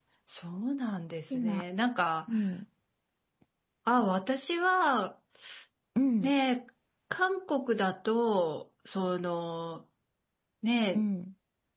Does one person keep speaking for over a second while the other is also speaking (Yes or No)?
No